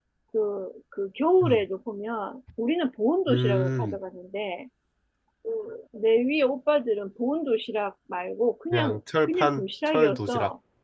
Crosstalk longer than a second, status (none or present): present